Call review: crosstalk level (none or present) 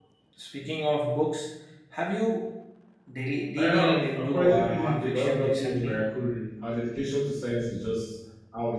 present